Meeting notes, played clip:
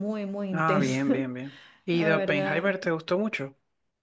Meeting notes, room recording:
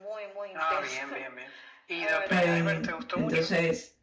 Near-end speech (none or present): present